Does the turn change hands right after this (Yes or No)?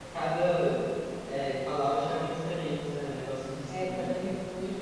Yes